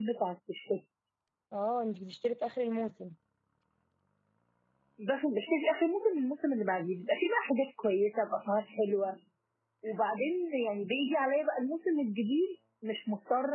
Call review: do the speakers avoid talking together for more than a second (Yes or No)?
Yes